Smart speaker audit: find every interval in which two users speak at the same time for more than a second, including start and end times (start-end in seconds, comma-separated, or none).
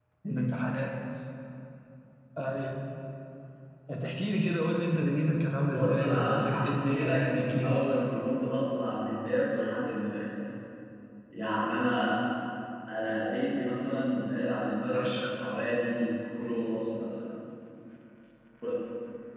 5.6-7.8